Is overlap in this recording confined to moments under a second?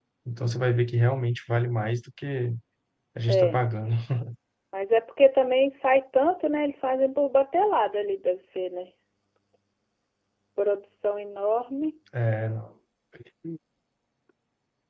Yes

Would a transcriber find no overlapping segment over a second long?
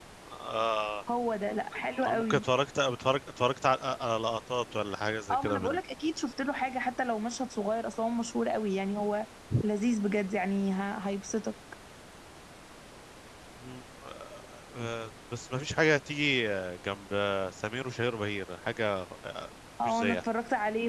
Yes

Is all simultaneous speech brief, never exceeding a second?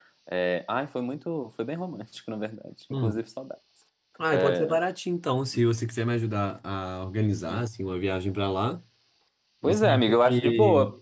No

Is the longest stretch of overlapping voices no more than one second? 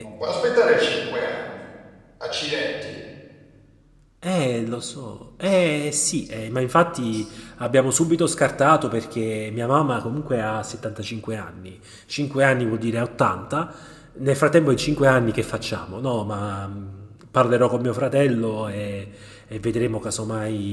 Yes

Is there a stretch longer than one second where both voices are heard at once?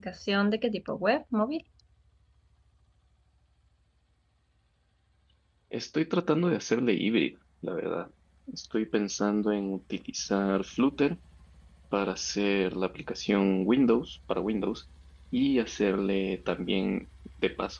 No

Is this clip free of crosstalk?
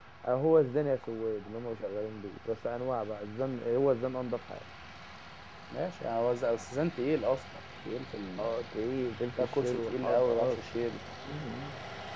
No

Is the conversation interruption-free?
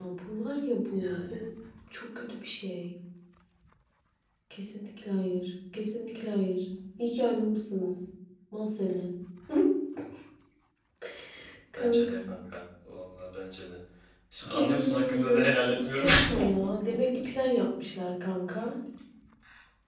No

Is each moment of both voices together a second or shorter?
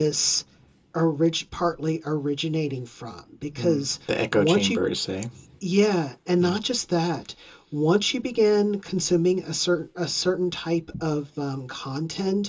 No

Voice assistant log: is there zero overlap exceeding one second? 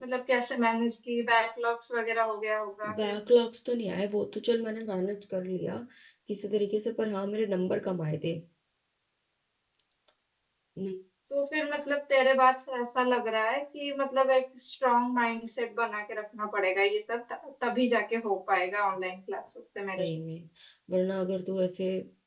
Yes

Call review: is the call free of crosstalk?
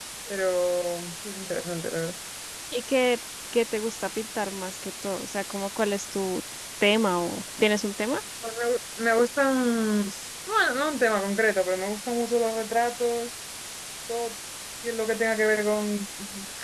Yes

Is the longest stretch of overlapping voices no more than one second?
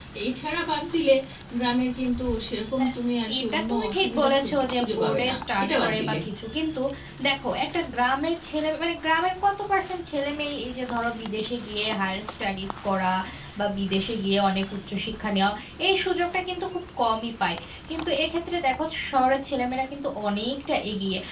No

